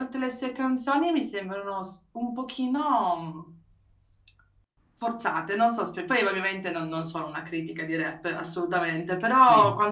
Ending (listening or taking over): listening